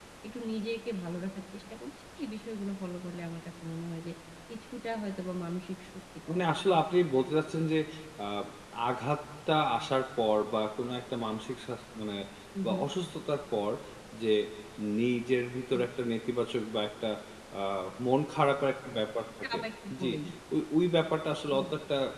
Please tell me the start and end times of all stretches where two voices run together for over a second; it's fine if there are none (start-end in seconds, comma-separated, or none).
none